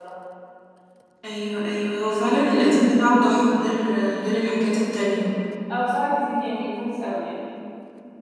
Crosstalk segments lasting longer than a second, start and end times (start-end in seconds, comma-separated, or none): none